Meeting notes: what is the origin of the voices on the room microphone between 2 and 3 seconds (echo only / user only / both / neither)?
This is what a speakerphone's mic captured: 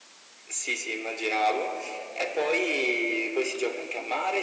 echo only